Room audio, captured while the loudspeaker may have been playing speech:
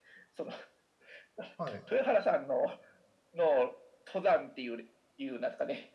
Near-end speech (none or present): present